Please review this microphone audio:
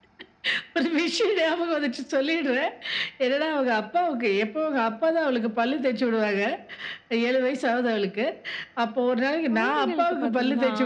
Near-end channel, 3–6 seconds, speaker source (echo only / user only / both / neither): echo only